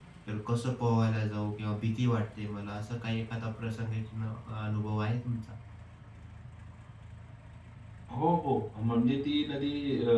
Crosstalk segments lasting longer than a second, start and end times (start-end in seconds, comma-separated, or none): none